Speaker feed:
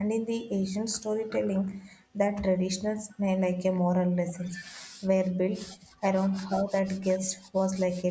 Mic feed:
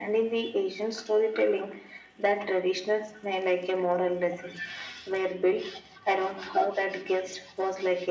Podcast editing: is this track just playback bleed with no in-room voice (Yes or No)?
Yes